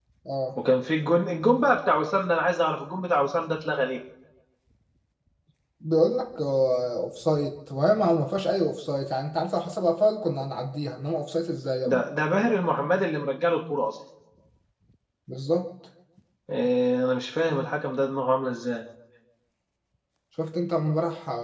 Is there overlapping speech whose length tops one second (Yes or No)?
No